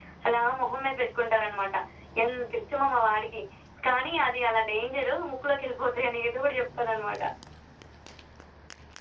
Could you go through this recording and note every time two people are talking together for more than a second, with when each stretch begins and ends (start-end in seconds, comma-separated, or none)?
none